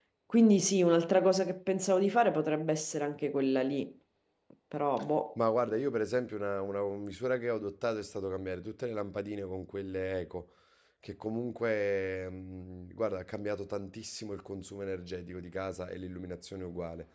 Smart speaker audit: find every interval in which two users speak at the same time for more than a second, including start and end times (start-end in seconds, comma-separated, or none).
none